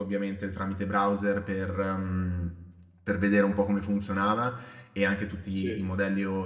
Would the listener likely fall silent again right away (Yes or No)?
Yes